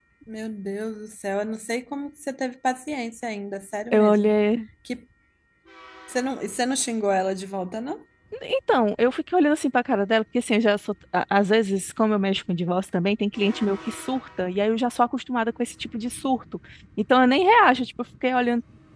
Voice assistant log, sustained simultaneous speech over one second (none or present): none